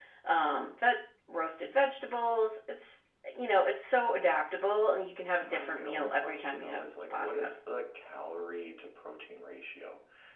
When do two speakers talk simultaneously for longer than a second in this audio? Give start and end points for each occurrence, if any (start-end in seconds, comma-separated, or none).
5.4-7.5